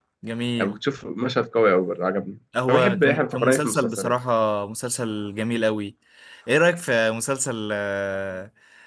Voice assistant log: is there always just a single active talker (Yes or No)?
No